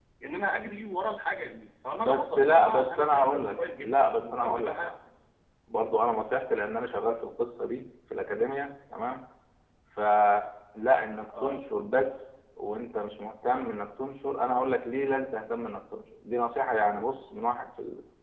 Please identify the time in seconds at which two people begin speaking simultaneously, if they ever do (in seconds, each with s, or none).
2.0 s